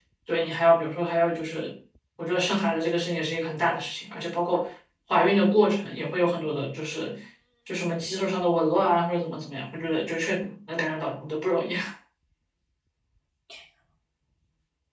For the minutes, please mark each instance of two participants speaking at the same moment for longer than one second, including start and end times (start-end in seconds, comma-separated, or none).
none